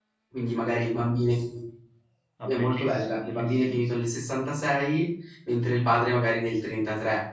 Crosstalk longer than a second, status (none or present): present